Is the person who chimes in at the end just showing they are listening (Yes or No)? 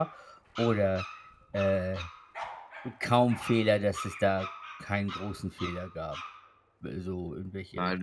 No